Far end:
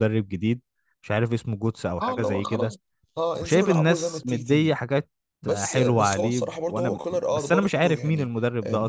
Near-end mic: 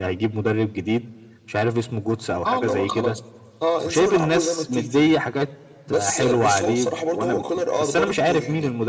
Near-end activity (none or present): none